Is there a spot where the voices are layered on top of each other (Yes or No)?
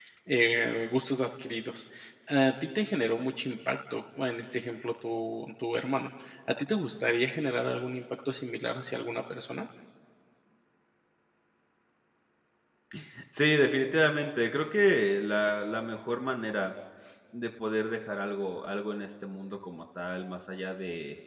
No